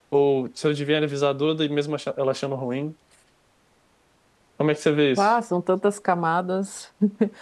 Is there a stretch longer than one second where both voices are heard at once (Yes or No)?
No